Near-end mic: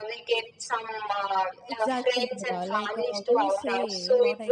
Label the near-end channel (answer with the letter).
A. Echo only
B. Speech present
B